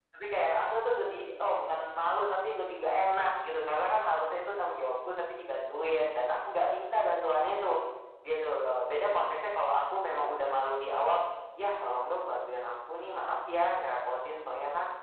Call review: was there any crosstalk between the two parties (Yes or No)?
No